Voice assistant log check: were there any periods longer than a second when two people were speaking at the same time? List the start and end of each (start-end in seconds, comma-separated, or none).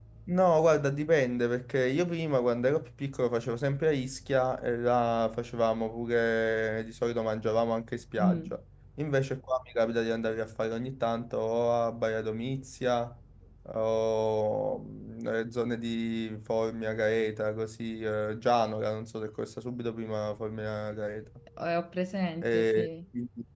none